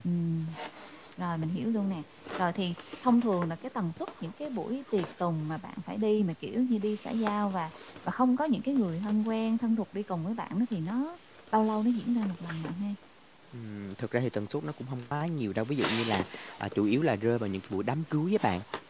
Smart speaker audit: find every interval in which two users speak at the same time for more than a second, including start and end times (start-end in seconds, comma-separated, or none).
none